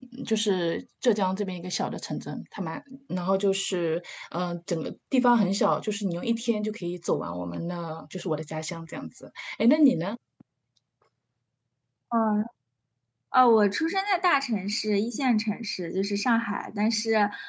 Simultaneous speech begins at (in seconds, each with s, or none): none